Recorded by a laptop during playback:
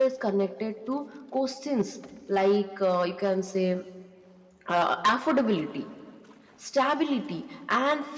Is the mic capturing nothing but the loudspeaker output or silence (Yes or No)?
No